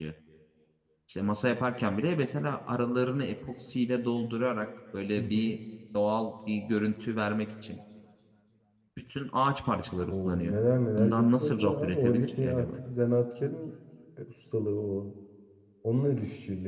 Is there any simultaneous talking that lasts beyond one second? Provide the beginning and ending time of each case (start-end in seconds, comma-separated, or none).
11.0-12.8